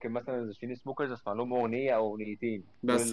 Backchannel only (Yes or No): Yes